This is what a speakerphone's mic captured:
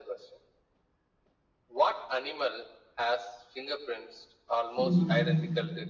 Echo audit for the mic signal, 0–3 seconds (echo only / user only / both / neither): echo only